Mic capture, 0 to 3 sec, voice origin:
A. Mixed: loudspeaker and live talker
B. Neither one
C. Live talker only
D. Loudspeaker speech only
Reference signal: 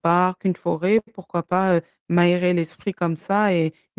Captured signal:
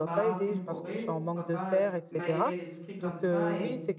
A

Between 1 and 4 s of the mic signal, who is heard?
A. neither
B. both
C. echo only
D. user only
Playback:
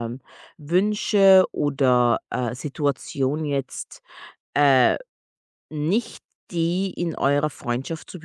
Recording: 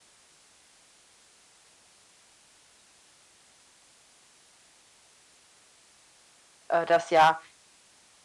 A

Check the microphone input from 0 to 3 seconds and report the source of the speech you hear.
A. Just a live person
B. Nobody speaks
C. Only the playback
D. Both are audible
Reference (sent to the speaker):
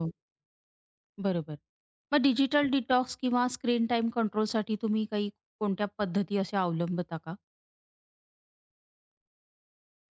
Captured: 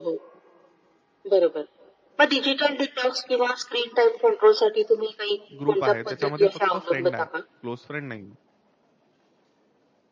C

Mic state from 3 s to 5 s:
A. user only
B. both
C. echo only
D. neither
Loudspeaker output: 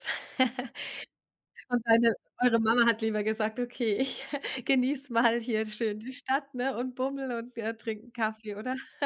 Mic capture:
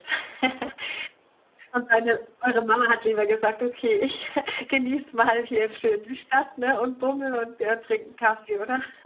C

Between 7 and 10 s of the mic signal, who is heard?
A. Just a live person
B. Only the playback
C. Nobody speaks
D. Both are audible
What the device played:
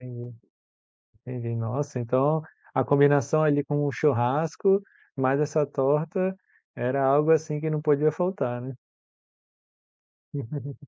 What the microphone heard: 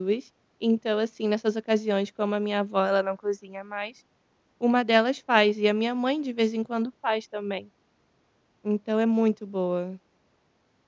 A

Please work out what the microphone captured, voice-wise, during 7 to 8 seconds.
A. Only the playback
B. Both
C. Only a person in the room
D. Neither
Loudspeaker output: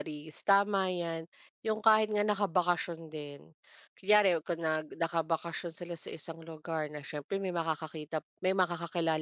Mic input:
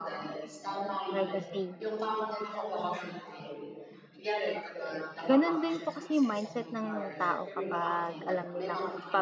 B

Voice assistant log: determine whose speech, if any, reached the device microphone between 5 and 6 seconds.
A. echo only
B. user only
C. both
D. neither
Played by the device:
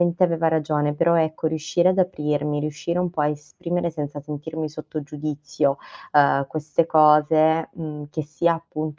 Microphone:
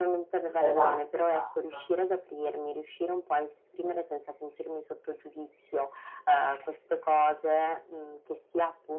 A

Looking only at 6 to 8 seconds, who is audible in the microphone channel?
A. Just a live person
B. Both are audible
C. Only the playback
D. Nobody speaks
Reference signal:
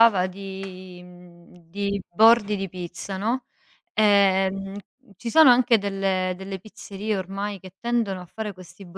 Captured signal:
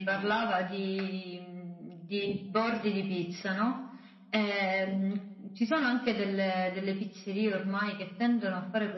C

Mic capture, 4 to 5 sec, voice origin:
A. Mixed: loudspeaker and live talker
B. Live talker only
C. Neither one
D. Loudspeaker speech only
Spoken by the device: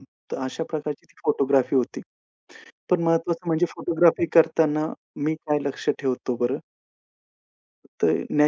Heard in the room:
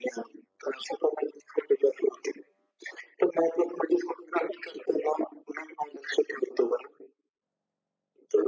D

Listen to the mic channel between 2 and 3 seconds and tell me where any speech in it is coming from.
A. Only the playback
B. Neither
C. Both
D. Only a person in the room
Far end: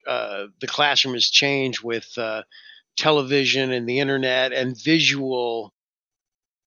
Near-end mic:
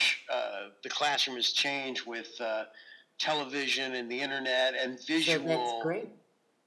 A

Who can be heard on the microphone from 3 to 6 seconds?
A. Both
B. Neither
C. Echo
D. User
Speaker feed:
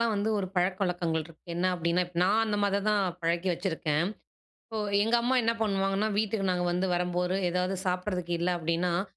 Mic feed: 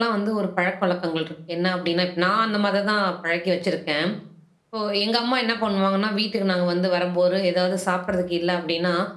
C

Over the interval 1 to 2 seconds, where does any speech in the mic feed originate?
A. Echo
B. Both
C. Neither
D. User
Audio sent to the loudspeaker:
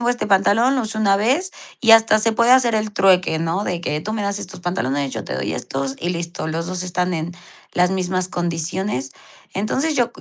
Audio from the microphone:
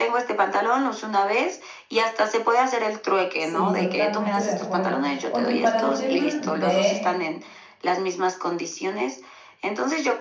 A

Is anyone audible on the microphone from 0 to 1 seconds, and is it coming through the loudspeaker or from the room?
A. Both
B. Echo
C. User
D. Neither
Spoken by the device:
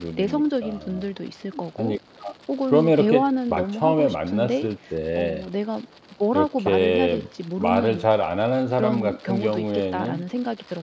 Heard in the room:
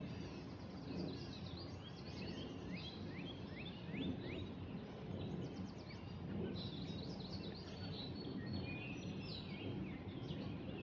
D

